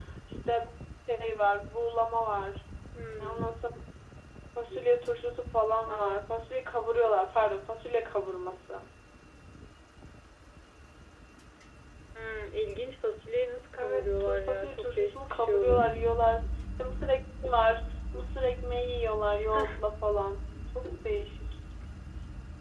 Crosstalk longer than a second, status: present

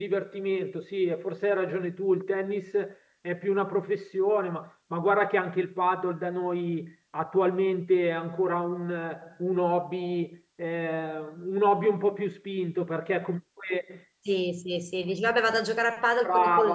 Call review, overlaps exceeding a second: none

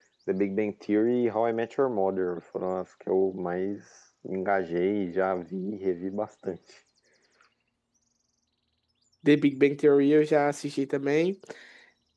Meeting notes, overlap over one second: none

